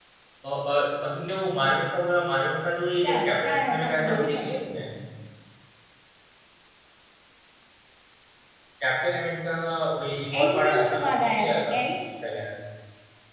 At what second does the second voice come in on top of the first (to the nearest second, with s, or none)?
3 s